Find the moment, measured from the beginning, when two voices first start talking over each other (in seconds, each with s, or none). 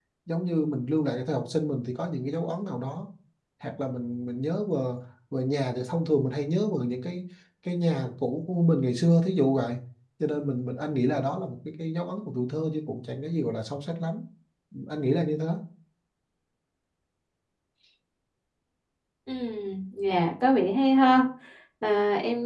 none